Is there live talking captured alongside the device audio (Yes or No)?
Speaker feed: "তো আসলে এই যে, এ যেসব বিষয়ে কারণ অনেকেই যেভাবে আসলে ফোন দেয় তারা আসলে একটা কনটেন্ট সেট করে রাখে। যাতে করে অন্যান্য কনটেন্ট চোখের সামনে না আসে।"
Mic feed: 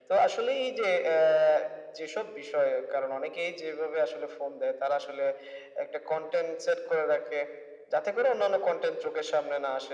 No